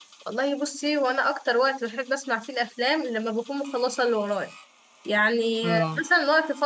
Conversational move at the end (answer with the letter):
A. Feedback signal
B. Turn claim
A